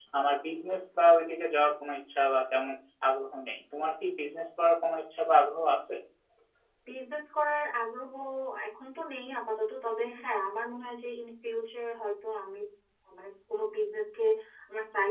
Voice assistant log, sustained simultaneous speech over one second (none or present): none